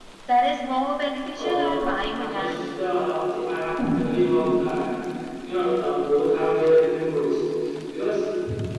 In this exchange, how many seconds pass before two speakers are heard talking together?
1 s

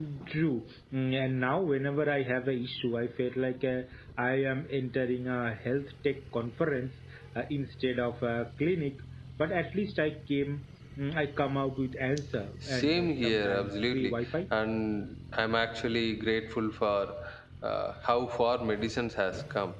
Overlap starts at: 13 s

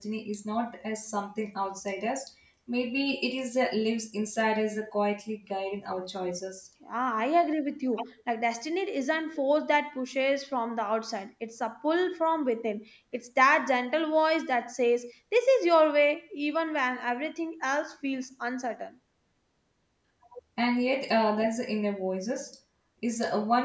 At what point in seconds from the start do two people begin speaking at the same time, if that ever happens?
none

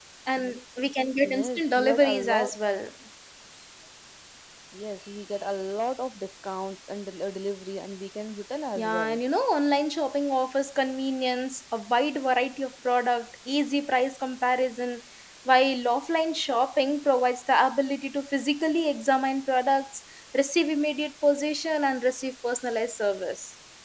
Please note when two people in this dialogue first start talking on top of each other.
1 s

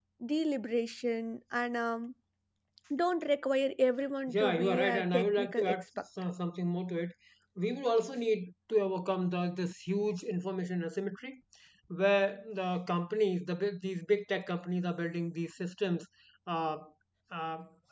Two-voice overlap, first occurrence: 4 s

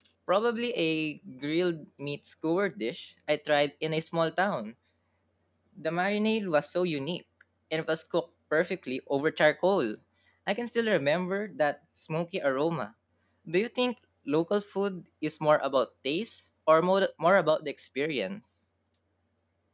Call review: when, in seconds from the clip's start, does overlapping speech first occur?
none

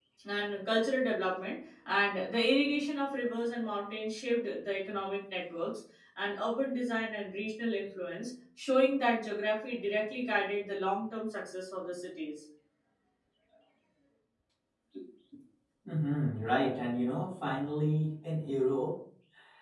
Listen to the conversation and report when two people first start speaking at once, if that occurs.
none

